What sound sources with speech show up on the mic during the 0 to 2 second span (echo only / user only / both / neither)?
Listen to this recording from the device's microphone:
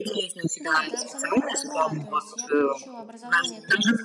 both